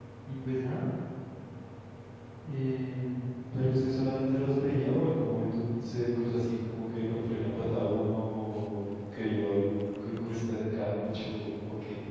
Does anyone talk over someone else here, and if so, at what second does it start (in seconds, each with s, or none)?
none